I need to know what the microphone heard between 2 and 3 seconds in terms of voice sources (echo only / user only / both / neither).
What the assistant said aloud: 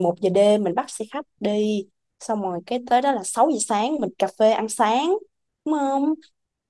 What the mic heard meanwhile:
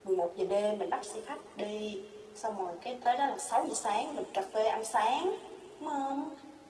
echo only